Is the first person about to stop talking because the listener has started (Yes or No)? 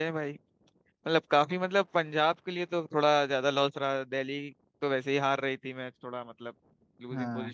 Yes